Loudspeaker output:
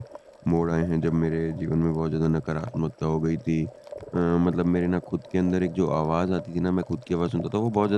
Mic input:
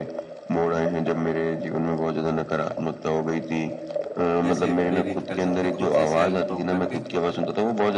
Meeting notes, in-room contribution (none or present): present